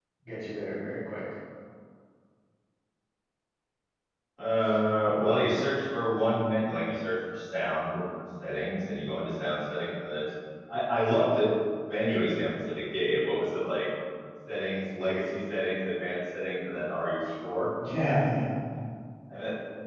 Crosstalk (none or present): none